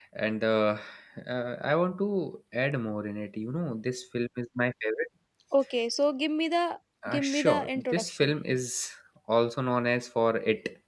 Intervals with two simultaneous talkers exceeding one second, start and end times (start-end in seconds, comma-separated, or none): 7.1-8.3